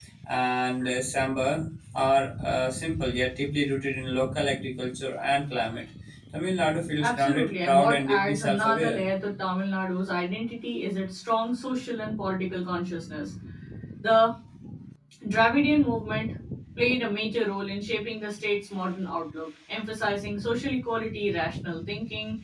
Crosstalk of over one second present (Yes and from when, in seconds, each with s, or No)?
Yes, from 7.0 s